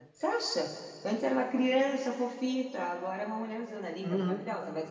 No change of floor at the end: No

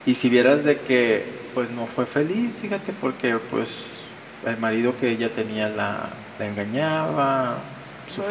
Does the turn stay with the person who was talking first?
No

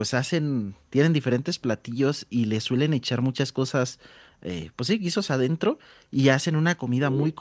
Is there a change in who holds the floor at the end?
No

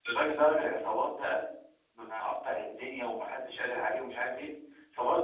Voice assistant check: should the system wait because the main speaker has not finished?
Yes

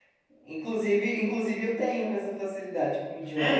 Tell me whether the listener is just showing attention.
No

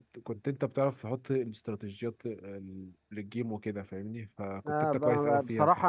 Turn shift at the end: Yes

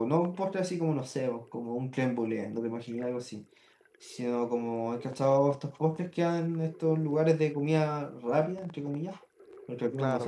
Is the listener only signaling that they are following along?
No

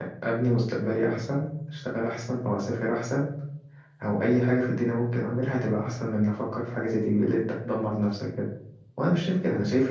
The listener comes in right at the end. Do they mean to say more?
No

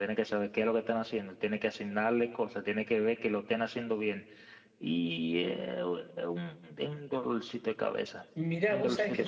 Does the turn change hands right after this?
Yes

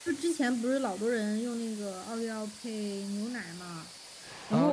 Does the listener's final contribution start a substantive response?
Yes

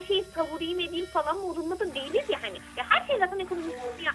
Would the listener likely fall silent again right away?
Yes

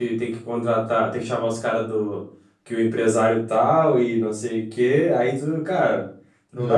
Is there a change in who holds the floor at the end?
No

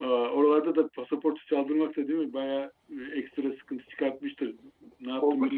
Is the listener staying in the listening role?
No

